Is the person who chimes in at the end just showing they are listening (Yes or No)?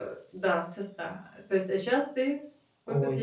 No